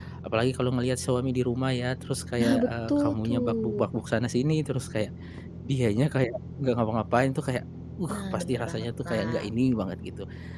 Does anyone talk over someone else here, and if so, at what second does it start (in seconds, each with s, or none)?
2.4 s